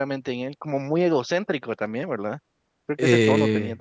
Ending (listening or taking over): taking over